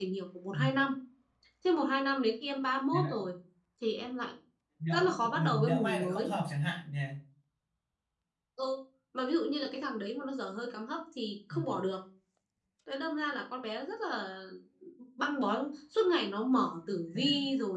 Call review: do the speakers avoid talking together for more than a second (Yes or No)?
No